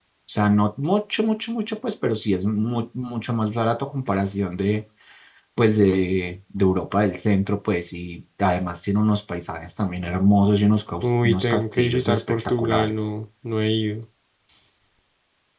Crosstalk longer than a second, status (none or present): present